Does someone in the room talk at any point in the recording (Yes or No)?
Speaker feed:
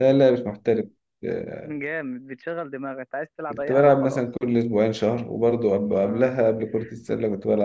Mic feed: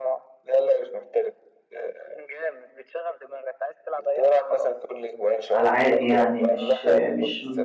Yes